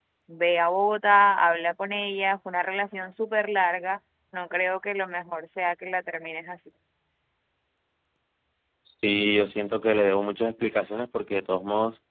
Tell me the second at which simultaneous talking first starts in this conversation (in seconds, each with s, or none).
none